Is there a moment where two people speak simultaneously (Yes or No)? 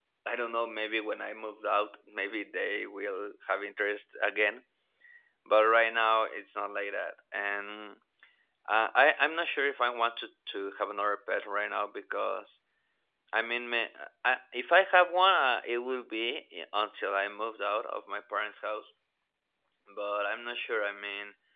No